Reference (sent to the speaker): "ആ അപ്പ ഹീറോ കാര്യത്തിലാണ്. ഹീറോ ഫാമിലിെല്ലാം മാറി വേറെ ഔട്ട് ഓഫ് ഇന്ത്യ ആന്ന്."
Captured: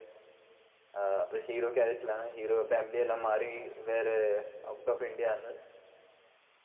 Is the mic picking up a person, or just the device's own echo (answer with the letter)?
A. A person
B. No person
B